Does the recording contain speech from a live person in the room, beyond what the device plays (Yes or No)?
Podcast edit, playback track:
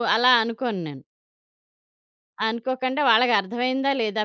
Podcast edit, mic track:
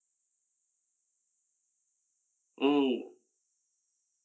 Yes